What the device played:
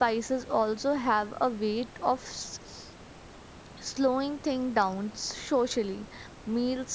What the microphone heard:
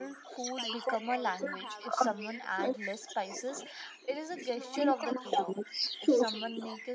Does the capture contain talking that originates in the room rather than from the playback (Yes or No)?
Yes